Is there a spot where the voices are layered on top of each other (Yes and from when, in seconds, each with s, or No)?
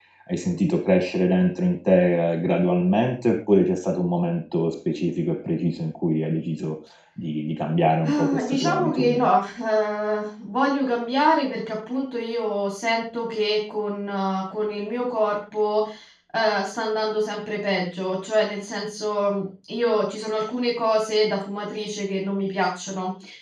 Yes, from 8.0 s